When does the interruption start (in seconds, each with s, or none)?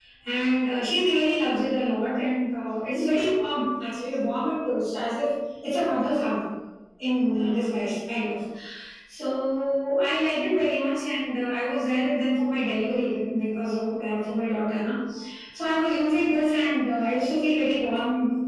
none